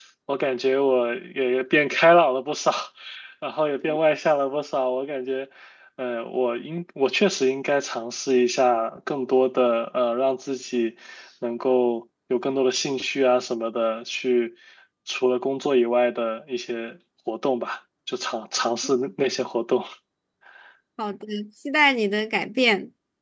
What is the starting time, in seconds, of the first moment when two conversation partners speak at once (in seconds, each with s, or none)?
none